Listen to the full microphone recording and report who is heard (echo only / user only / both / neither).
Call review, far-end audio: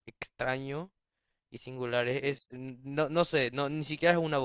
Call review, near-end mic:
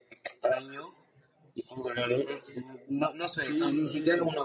both